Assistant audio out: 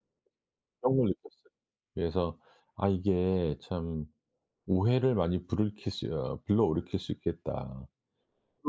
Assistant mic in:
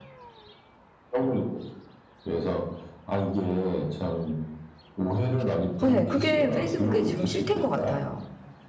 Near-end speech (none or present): present